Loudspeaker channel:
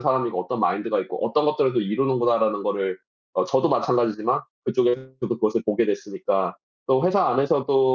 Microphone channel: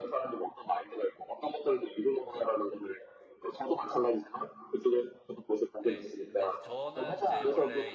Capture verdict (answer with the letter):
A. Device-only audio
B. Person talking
B